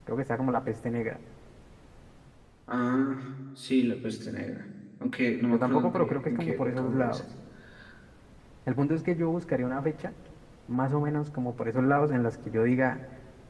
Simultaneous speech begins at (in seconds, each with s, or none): 5.5 s